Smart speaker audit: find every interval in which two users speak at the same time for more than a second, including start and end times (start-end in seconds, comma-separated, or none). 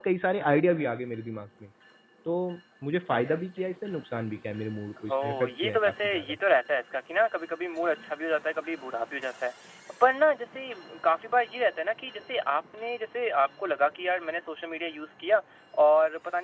5.1-6.4